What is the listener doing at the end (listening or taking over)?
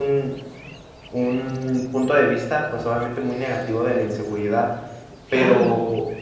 listening